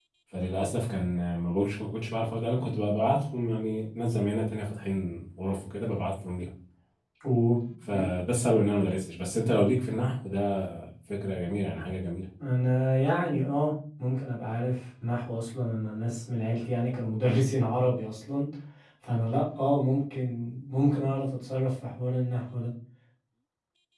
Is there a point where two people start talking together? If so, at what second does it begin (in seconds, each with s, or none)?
none